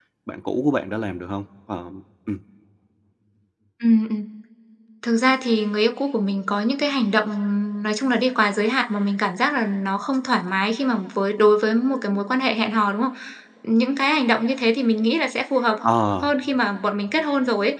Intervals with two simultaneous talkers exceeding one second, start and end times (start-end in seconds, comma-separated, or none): none